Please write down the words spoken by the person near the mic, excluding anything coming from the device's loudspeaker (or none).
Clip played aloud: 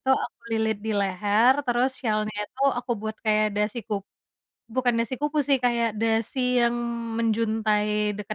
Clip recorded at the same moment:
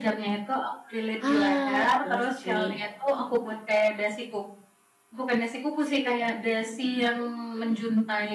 Ah, iya sih.